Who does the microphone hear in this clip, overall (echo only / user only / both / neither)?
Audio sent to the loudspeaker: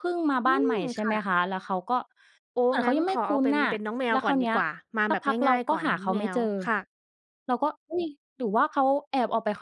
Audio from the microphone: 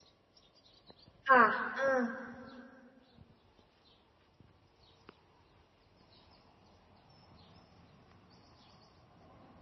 user only